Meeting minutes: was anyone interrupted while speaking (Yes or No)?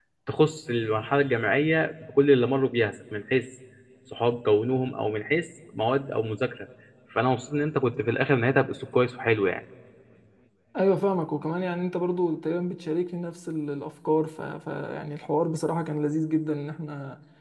No